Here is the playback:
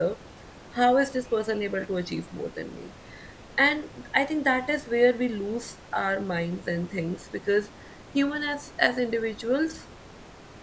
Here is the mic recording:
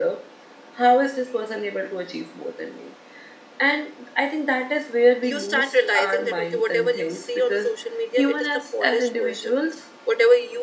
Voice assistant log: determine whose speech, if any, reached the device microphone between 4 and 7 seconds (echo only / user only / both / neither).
both